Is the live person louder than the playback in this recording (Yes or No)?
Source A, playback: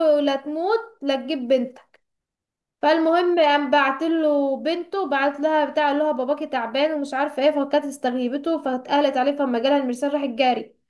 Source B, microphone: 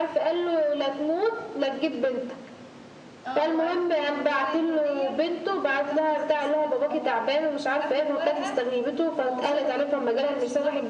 No